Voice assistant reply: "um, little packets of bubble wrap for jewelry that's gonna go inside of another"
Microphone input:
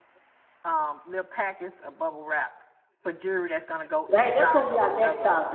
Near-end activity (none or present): present